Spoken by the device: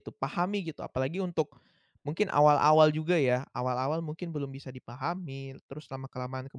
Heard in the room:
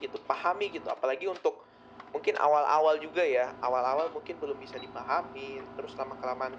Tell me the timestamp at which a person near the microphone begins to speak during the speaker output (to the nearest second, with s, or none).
none